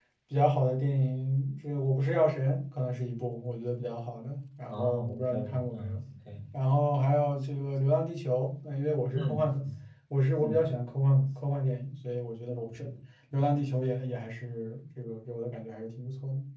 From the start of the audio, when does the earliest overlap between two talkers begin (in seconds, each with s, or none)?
4.7 s